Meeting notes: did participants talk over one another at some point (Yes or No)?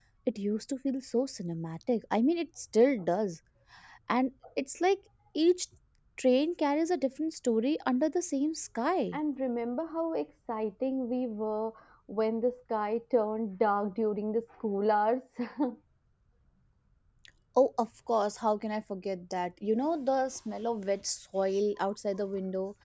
No